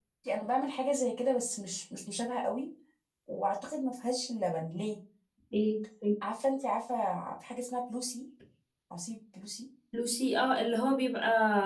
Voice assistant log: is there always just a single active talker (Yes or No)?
Yes